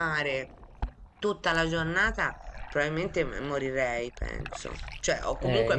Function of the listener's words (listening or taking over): listening